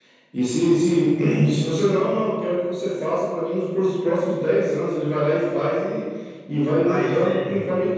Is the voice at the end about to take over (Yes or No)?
No